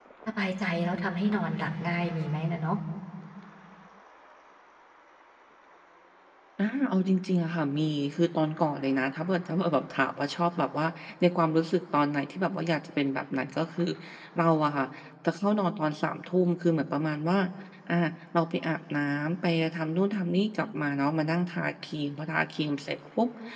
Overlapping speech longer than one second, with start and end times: none

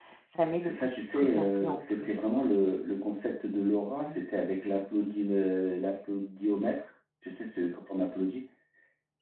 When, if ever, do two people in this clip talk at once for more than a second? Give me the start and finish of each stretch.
0.6-2.4

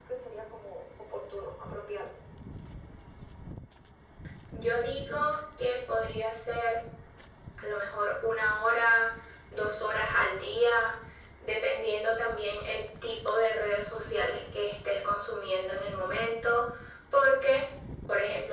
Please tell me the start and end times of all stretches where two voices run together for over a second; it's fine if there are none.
none

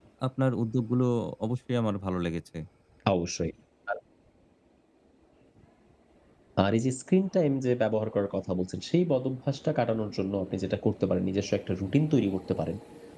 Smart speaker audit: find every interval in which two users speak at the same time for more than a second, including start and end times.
none

